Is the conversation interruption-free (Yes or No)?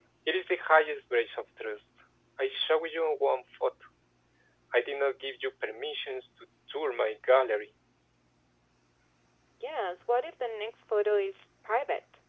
Yes